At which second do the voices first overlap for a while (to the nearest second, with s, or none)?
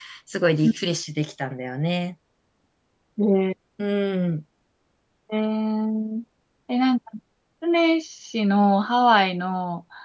none